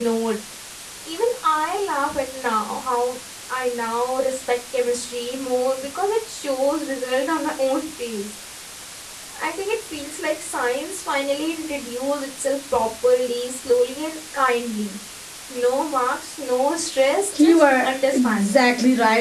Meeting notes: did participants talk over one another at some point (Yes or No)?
Yes